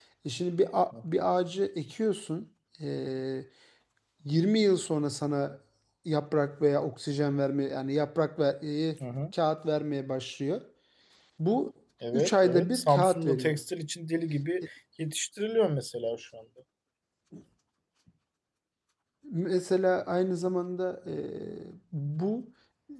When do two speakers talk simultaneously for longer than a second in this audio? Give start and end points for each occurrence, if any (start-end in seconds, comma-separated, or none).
12.1-13.6